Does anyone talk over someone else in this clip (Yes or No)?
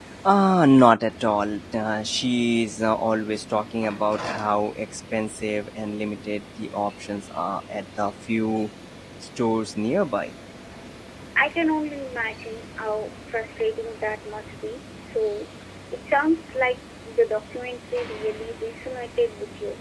No